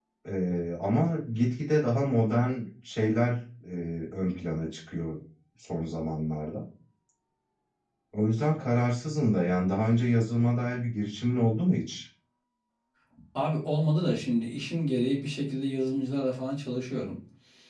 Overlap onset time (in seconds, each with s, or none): none